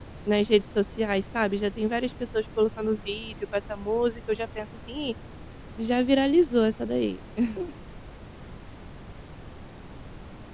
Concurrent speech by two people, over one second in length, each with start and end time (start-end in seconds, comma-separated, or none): none